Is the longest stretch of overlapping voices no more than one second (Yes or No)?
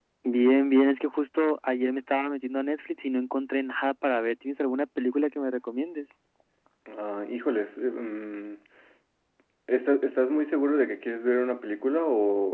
Yes